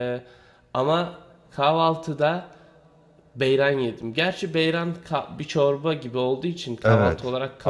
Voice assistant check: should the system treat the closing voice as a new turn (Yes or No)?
Yes